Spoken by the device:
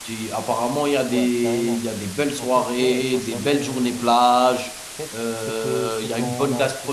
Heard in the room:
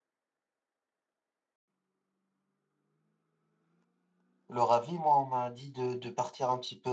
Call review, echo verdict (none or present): none